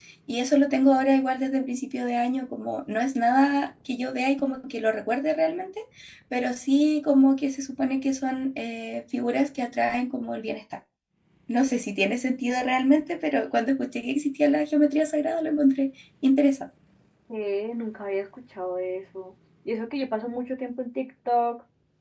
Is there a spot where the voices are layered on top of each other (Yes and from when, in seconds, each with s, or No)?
No